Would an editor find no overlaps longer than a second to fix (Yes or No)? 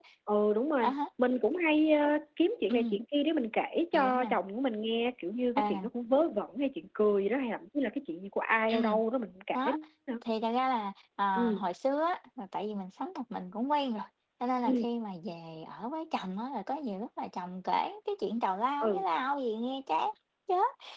Yes